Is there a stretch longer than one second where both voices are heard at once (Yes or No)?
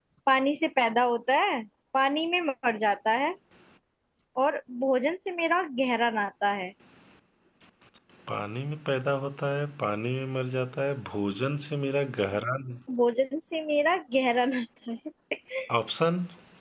No